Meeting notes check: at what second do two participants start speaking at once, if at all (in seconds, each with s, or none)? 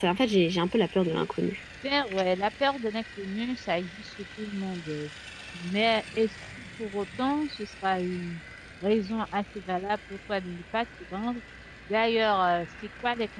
none